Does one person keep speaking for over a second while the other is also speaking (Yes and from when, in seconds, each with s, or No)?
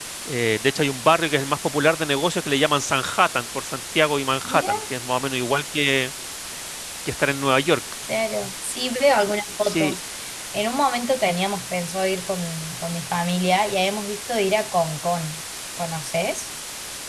No